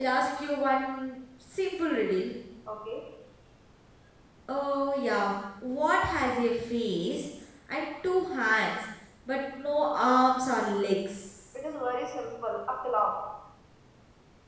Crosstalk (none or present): none